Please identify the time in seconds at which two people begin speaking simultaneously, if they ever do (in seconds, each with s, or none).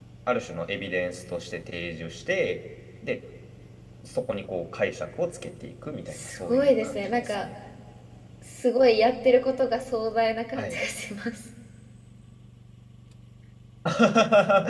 6.1 s